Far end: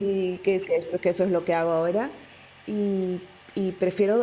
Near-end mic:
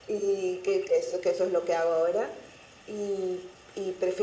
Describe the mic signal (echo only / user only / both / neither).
echo only